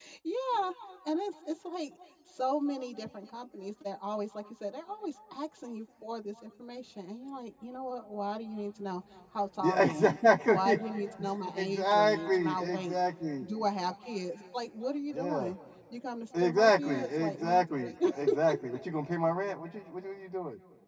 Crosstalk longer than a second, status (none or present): present